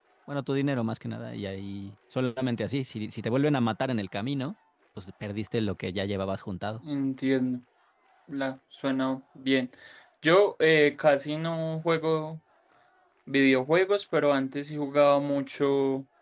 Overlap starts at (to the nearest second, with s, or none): none